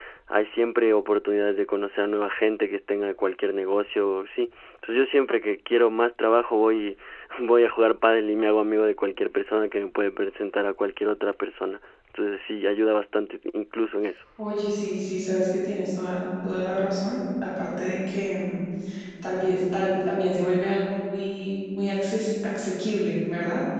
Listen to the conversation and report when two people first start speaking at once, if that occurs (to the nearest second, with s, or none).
none